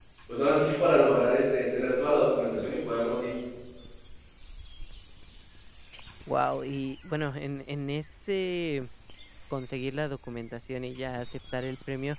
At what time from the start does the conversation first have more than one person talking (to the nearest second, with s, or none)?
none